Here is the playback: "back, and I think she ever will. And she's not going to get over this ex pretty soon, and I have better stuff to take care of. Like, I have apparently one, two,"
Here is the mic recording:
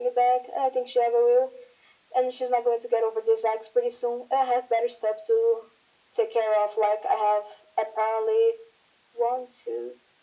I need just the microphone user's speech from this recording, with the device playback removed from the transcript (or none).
none